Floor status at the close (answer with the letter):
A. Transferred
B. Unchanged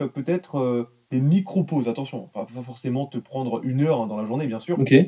B